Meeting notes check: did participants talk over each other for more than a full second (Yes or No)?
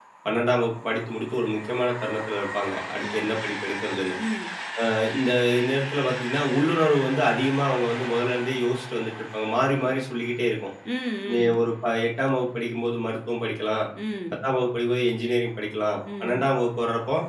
No